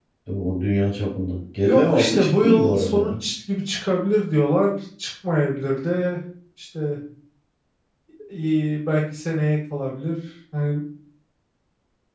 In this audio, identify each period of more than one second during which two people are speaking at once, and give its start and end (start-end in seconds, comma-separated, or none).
1.6-3.1